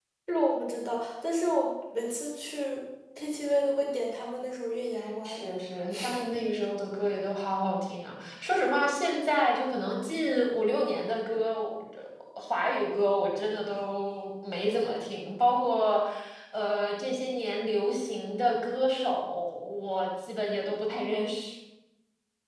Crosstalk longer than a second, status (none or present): none